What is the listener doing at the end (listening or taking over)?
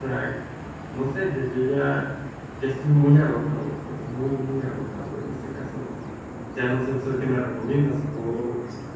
listening